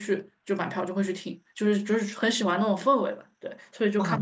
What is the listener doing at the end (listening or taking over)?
taking over